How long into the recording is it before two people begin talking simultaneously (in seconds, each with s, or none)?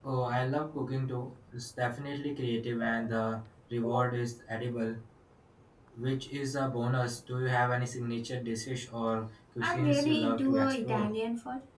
9.6 s